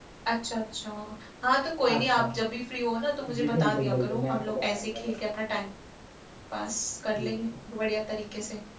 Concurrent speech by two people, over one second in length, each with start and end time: 3.4-5.1

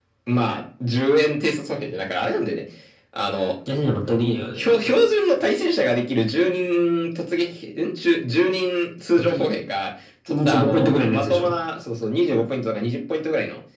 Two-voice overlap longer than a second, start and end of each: 10.3-11.5

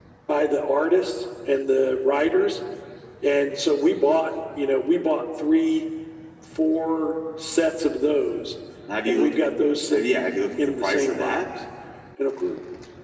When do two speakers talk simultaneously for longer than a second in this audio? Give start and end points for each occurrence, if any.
9.9-11.4

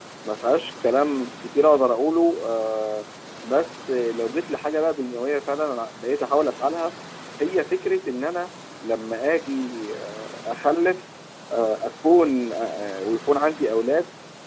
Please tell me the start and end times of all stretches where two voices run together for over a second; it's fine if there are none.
none

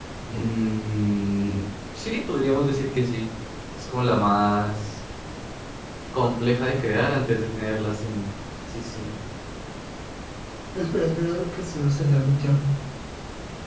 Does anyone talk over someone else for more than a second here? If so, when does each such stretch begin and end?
none

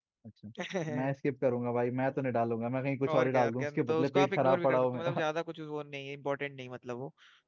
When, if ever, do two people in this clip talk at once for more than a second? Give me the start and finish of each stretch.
3.1-5.2

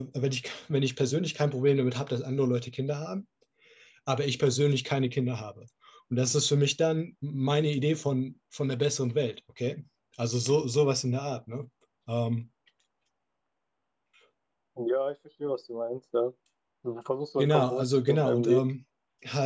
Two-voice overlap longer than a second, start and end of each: 17.4-18.6

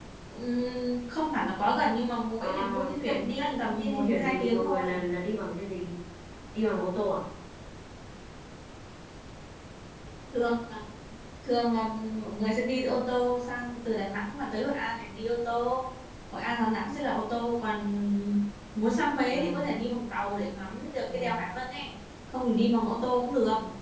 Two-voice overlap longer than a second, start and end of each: 2.4-5.0

